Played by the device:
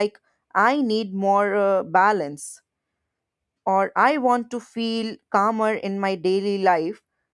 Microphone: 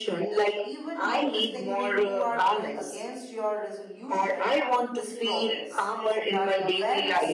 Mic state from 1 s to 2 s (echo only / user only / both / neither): both